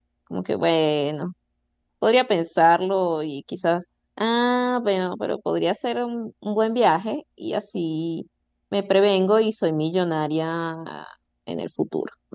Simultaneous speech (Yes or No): No